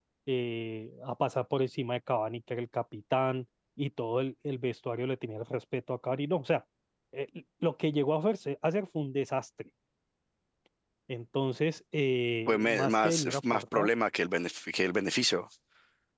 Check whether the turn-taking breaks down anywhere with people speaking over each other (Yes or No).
Yes